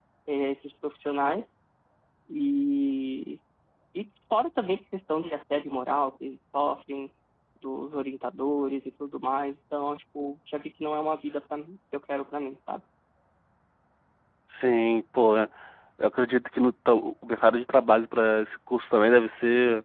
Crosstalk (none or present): none